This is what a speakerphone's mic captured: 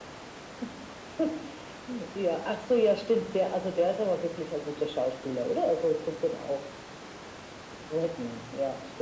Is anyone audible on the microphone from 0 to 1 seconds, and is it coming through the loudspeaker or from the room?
neither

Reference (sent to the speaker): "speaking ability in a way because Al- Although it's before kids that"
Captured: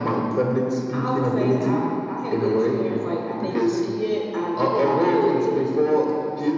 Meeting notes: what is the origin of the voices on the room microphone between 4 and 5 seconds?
both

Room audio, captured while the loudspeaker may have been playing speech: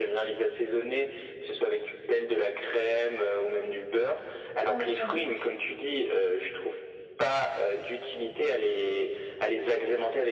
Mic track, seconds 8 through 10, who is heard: echo only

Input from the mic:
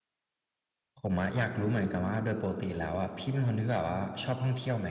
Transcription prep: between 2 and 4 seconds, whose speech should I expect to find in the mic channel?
user only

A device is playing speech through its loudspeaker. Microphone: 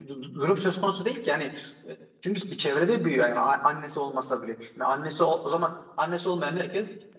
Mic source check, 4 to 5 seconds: user only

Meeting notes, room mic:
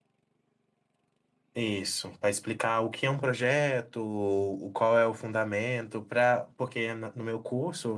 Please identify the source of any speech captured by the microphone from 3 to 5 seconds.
user only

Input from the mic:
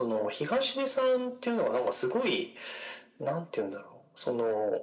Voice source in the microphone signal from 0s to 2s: echo only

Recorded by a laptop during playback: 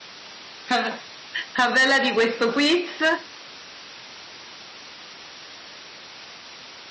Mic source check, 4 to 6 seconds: neither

